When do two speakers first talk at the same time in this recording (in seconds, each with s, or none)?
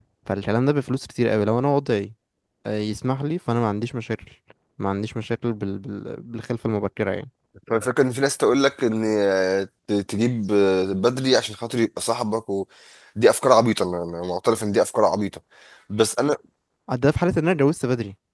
none